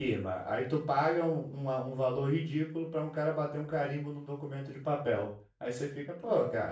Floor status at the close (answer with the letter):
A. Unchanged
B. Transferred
A